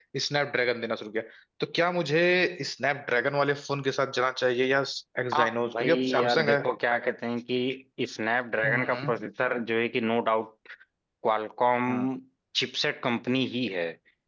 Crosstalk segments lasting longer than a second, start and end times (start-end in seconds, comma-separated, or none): 5.3-6.6